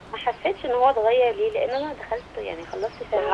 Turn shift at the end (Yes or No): Yes